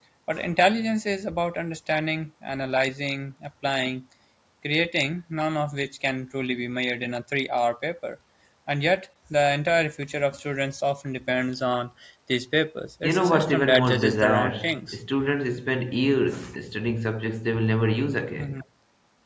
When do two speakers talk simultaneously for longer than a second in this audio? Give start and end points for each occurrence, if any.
13.0-15.0

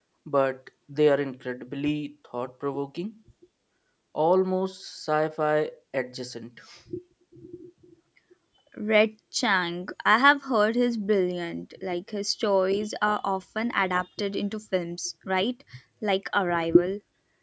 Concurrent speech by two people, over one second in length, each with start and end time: none

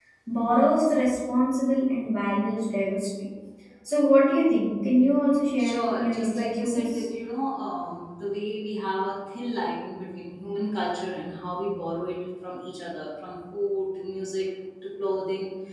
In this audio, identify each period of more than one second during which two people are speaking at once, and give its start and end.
5.6-7.0

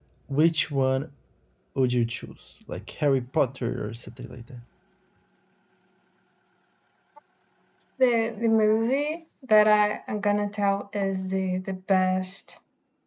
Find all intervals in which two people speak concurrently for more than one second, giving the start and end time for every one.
none

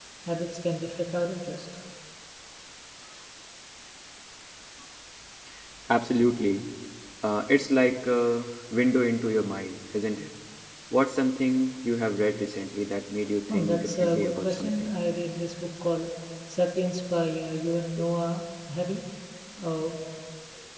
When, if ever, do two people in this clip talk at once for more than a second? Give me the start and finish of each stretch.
13.5-14.9

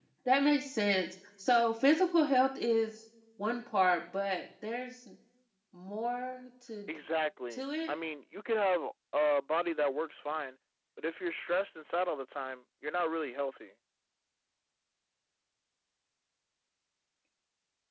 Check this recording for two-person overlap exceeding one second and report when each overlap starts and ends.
none

